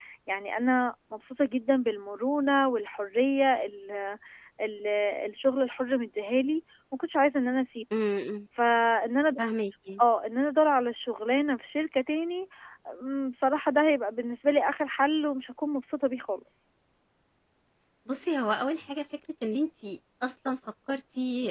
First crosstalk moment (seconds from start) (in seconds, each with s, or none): none